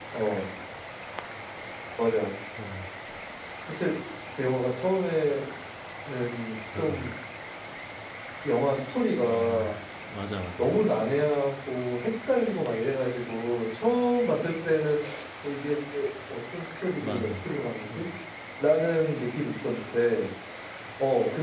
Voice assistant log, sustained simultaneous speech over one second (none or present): none